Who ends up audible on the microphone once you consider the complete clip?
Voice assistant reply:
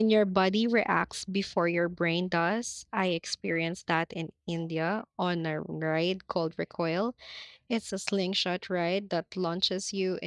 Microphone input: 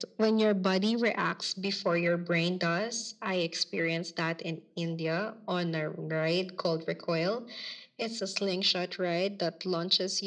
echo only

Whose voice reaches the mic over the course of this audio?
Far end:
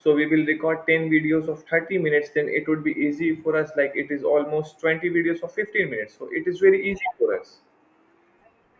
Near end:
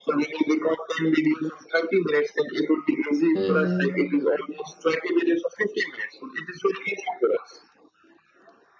both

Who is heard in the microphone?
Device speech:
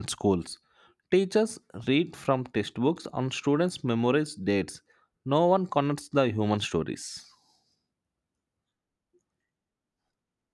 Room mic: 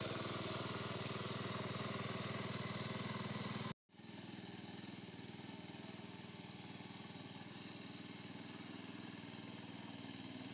neither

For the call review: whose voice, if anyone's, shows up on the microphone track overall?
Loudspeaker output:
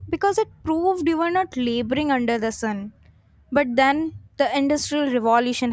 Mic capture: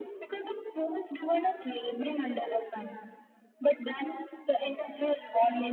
echo only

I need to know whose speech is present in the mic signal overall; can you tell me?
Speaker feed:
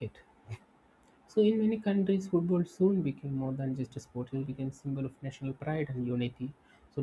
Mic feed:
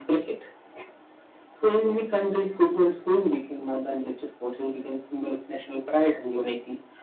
echo only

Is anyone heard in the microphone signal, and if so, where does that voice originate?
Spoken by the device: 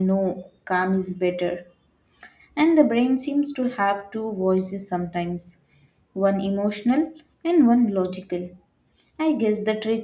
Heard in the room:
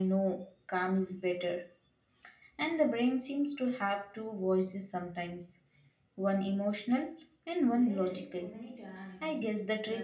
both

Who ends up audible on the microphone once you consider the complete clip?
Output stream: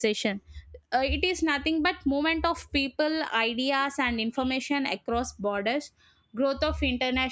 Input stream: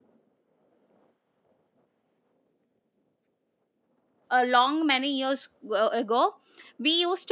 user only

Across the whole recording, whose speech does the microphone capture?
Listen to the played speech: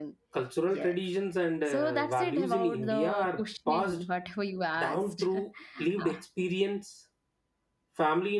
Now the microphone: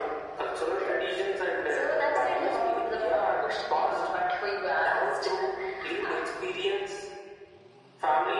echo only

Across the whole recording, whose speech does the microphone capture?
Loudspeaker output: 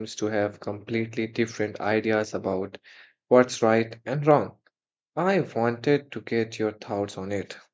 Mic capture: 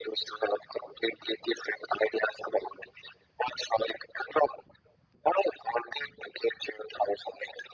echo only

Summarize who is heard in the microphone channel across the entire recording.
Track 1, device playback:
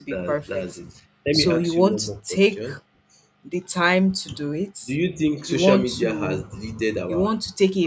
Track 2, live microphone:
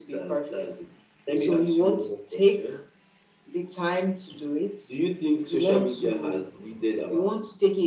echo only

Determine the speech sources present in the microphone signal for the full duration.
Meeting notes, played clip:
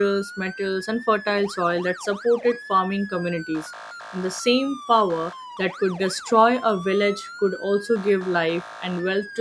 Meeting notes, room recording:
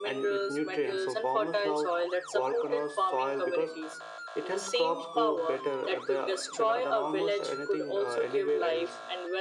both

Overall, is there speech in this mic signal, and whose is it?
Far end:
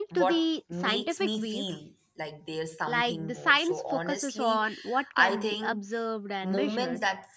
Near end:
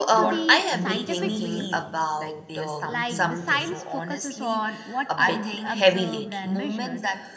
both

